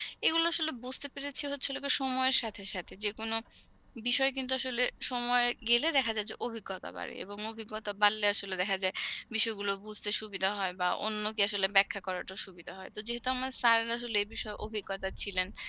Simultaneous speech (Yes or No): No